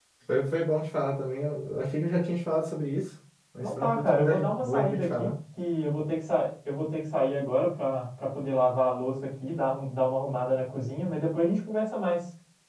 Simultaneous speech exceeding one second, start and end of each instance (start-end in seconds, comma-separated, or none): 3.6-5.3